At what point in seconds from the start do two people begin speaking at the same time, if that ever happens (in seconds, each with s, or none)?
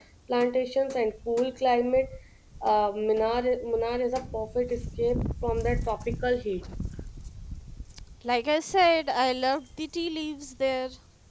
none